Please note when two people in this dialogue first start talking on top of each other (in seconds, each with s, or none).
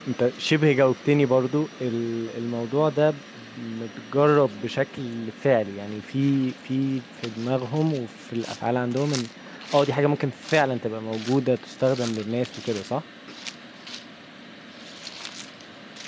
none